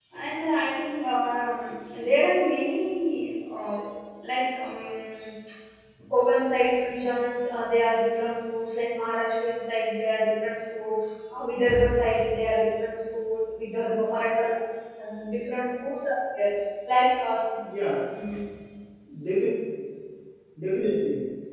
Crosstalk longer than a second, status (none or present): none